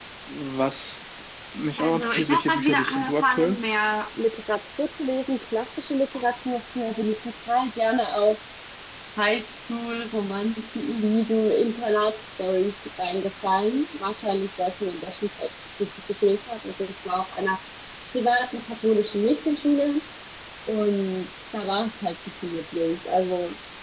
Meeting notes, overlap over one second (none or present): present